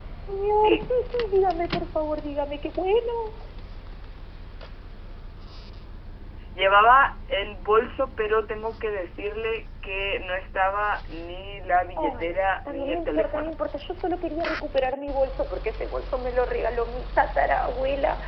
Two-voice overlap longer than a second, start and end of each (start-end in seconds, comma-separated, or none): 12.0-13.6